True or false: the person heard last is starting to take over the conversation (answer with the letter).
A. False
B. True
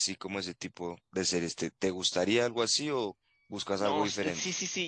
B